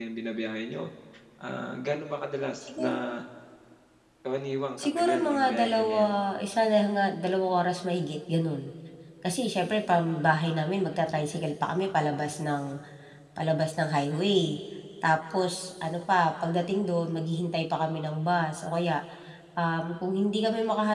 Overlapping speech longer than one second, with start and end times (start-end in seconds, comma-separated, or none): 4.8-6.1